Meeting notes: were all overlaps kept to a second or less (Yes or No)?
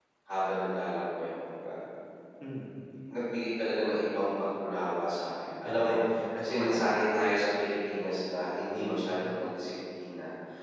Yes